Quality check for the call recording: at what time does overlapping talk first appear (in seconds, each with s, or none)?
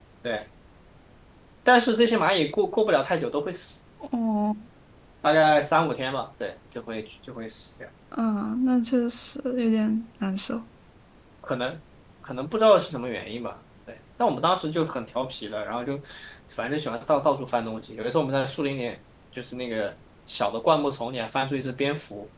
none